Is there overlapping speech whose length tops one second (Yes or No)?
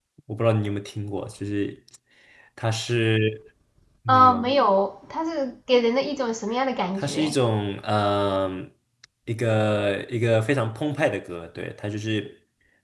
No